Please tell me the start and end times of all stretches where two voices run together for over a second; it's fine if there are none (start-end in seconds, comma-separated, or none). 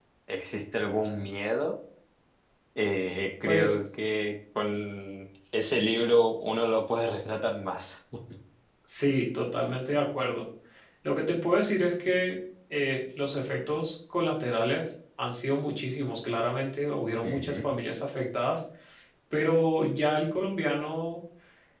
none